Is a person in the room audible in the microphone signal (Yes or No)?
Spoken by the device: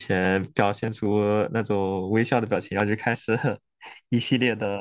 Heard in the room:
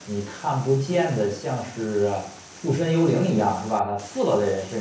Yes